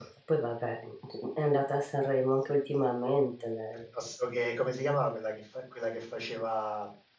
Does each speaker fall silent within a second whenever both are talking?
Yes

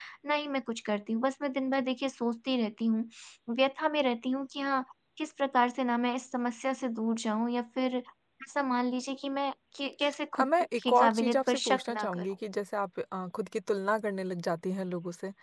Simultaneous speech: Yes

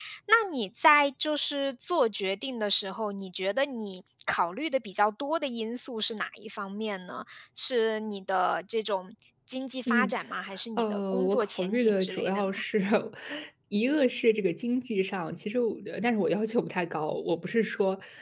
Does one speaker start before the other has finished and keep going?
Yes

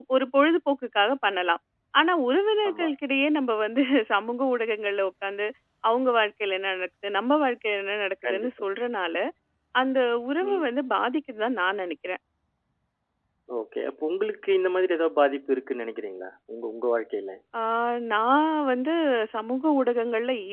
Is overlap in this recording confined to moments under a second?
Yes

